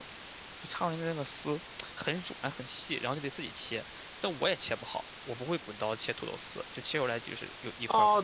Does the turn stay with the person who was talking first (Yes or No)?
No